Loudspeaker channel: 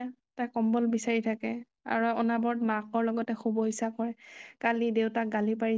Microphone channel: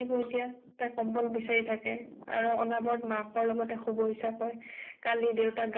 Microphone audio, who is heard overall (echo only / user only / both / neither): echo only